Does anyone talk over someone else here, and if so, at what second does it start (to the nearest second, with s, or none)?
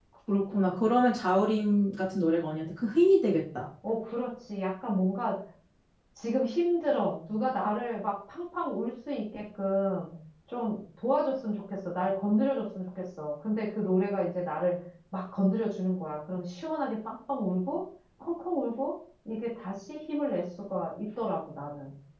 none